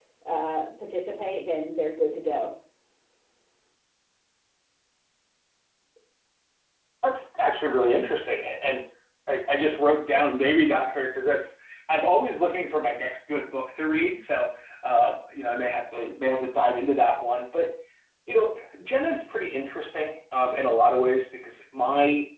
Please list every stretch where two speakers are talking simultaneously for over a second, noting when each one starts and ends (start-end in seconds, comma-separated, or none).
none